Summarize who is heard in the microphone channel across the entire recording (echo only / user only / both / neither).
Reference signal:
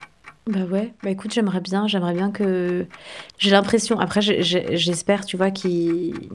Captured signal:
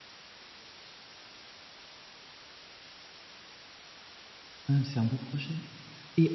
user only